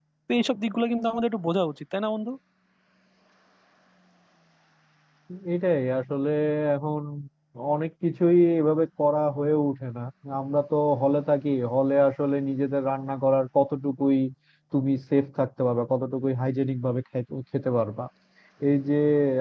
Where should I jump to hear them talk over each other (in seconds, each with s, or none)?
none